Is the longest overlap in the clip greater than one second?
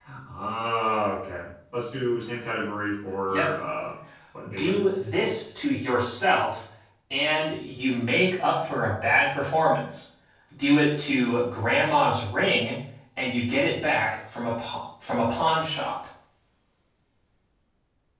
No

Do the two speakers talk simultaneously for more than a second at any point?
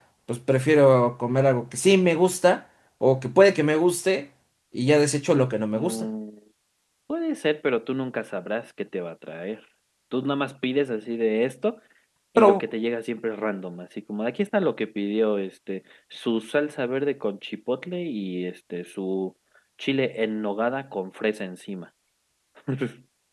No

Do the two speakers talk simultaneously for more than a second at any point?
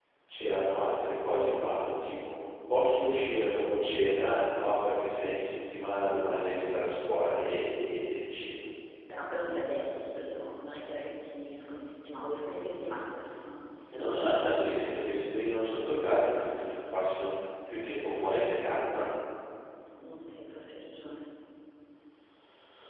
No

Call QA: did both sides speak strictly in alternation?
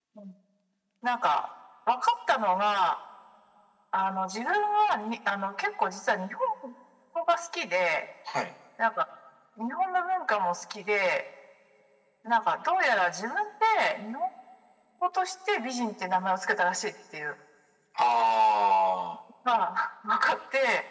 Yes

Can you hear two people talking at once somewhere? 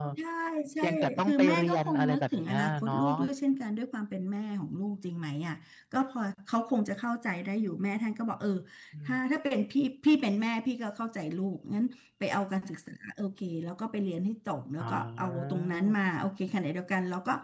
Yes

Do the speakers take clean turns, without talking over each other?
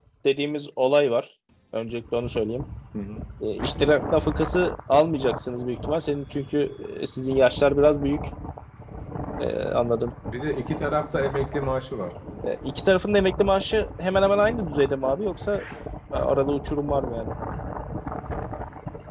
Yes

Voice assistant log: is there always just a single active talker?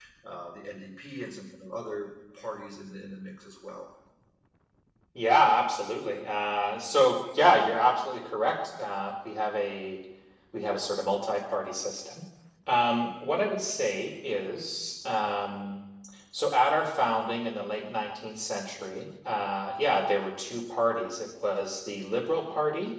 Yes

